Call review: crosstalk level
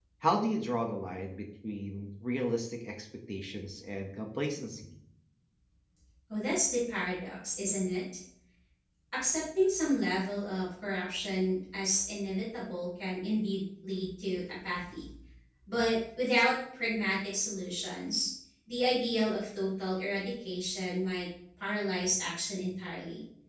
none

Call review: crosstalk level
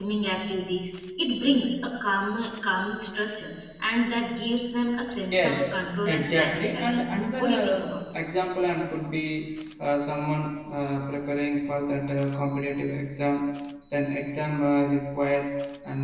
present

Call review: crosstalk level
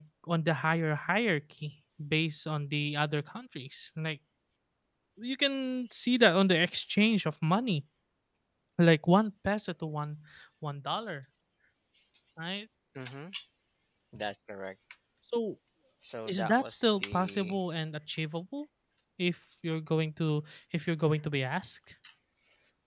present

